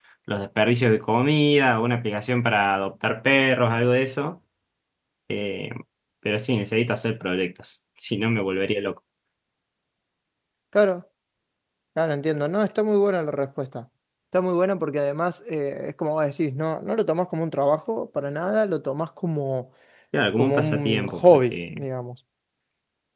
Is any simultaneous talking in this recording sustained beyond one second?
Yes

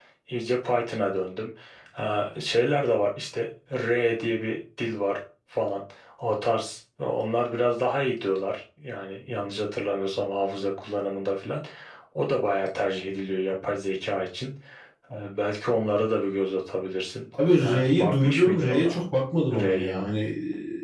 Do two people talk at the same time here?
Yes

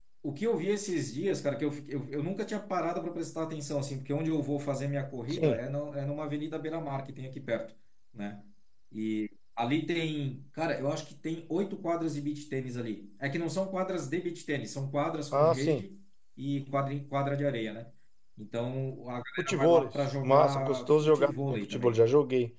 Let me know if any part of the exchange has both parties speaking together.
Yes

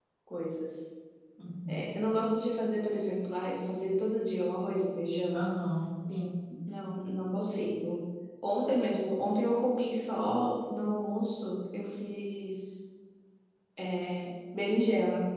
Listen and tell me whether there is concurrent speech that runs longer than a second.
No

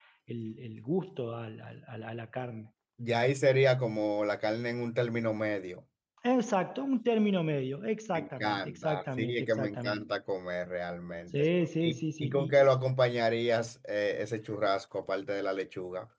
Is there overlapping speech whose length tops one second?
Yes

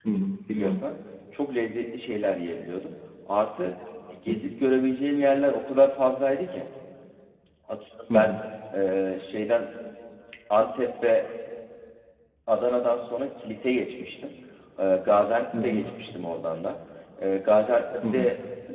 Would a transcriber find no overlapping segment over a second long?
Yes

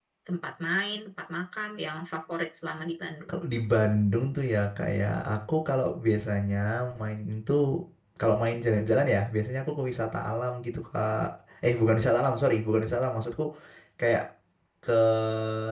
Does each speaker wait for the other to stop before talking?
Yes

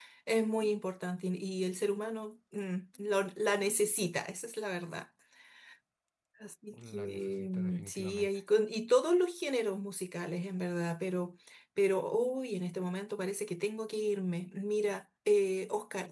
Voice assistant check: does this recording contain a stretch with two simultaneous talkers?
Yes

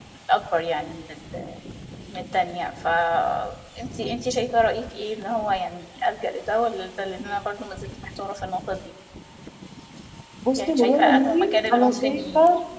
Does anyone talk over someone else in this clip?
Yes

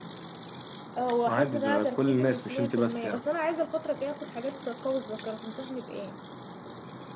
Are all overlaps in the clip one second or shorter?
No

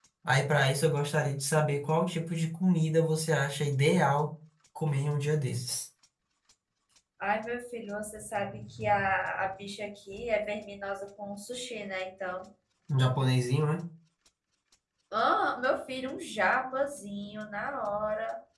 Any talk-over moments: No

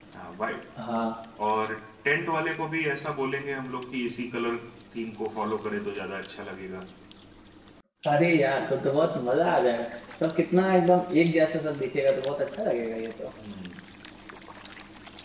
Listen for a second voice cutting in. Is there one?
No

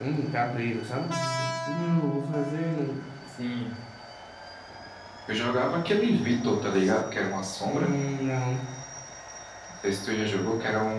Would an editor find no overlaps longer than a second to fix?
Yes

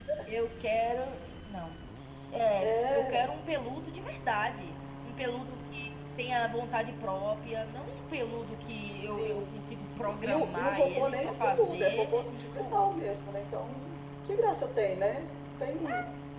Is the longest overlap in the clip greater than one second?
Yes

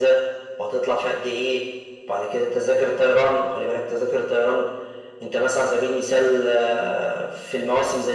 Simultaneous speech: No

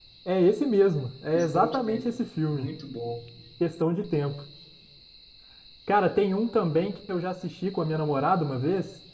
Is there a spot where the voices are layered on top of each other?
Yes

